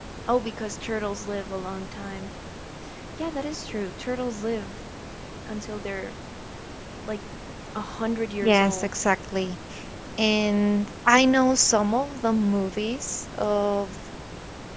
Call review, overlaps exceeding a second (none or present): none